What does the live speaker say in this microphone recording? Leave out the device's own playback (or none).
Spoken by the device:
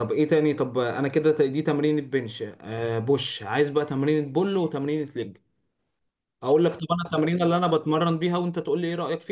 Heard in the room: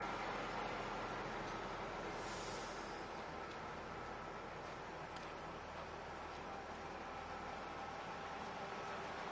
none